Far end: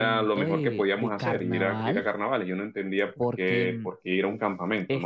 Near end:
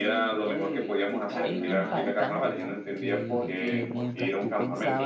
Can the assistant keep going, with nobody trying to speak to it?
No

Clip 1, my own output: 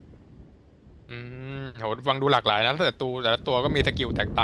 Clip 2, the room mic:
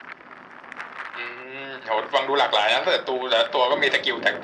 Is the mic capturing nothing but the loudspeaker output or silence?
Yes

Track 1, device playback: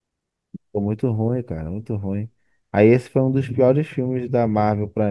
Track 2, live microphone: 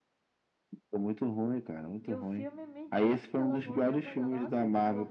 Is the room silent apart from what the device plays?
No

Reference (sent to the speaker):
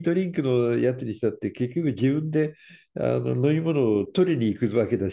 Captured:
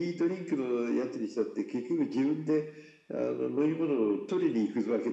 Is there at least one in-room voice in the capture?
No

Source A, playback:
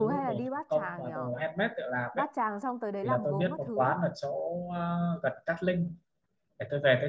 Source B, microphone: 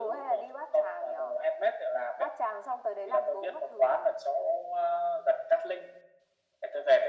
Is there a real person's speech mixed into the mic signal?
No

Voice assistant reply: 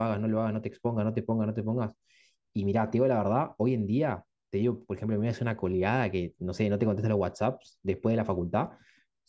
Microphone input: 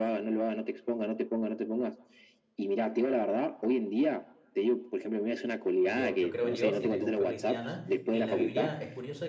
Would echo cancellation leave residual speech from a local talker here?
Yes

